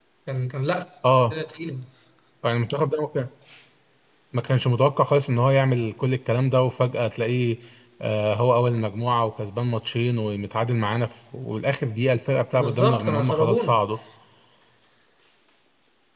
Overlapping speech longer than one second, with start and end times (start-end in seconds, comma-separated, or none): 12.5-13.8